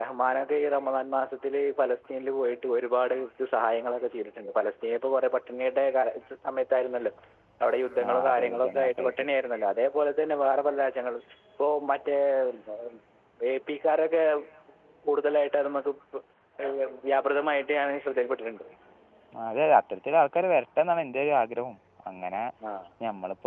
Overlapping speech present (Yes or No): Yes